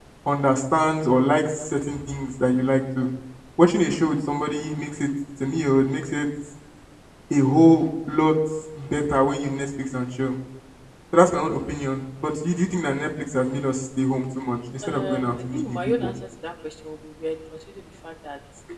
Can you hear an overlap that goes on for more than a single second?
Yes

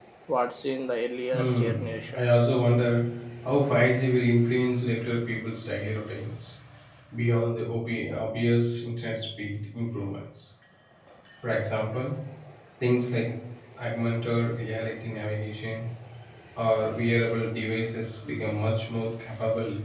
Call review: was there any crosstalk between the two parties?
Yes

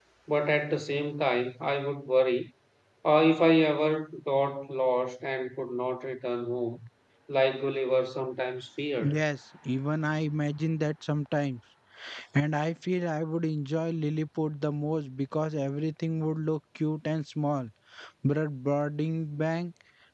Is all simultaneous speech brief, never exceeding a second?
Yes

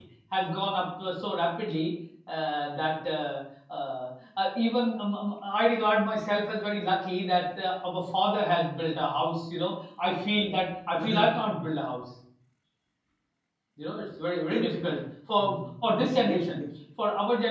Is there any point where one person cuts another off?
Yes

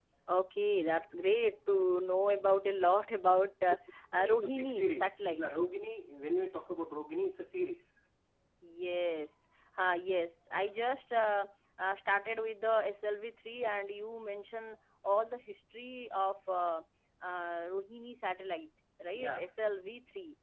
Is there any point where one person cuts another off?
Yes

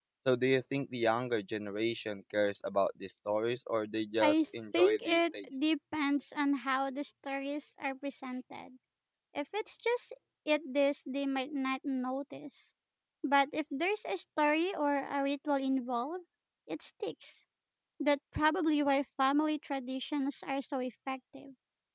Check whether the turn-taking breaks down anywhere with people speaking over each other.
Yes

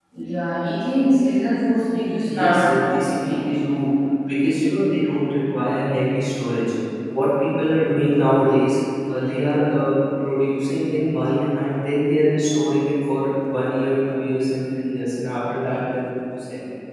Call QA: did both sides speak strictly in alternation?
No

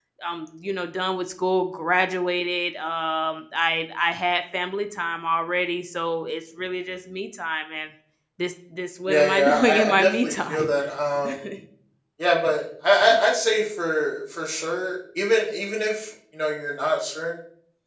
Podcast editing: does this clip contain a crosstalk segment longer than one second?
Yes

